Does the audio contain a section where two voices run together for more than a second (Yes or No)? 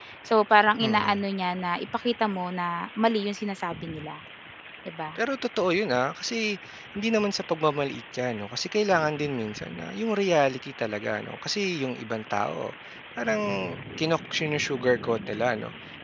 No